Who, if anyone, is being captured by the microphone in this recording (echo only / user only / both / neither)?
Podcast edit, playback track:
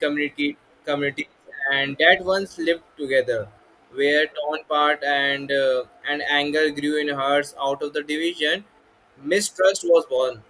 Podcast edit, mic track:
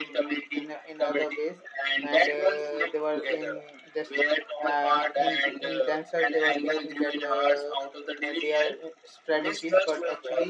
both